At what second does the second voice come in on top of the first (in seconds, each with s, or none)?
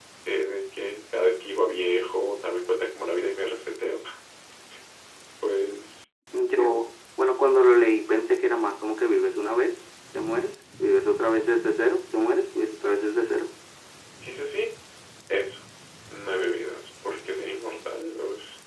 none